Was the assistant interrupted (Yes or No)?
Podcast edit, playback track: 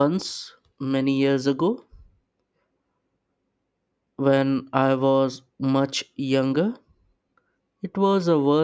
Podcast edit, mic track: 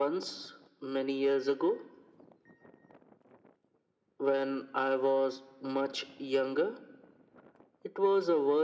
No